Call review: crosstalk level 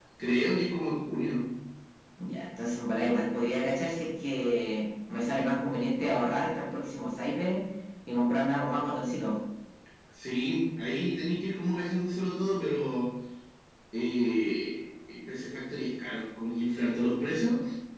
none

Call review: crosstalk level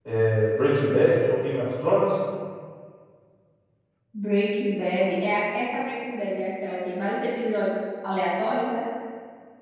none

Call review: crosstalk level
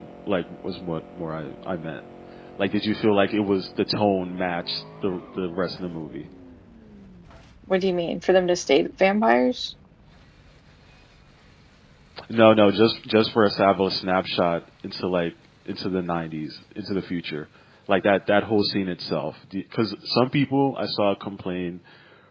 none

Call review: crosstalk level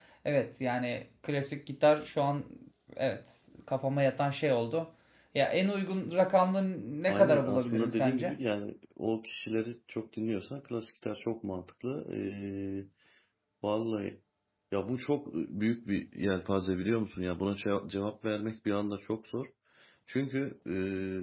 present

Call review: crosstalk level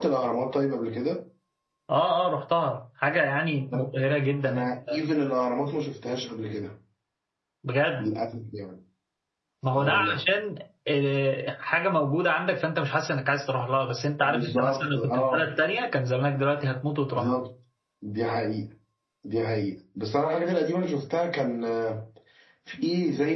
present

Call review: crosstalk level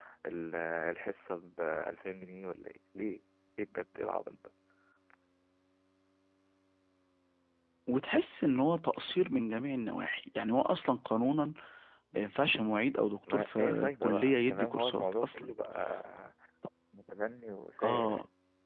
present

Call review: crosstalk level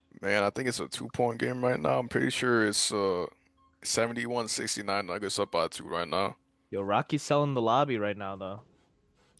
none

